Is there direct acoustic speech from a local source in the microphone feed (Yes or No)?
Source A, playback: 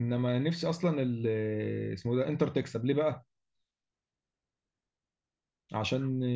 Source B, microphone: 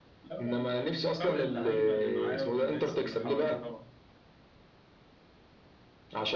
Yes